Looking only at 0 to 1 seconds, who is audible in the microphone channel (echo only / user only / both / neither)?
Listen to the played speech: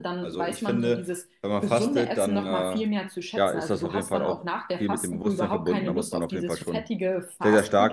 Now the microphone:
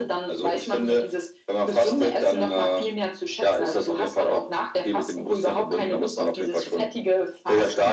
echo only